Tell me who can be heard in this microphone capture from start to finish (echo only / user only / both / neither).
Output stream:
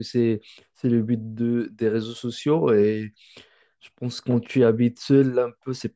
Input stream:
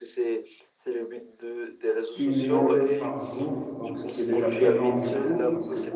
both